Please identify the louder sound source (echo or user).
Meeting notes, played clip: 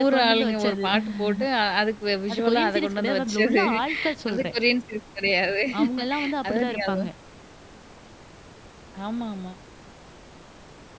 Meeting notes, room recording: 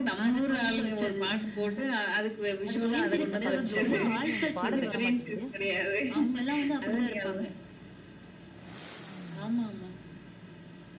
echo